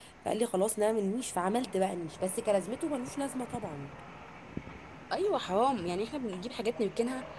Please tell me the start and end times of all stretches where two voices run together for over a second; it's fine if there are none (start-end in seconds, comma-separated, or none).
none